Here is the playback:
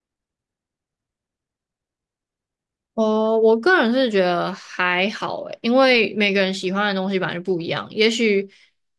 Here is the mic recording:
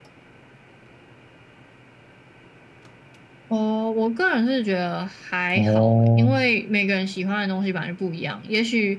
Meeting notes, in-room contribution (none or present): present